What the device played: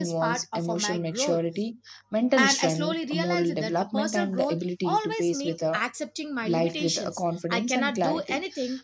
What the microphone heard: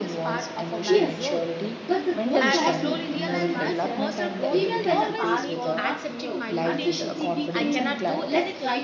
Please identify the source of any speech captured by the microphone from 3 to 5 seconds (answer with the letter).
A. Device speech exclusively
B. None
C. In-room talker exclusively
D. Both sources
D